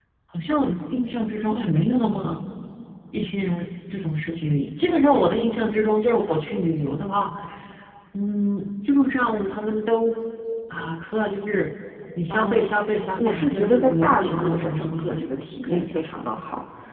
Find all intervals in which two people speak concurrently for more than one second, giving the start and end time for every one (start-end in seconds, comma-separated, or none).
13.2-15.4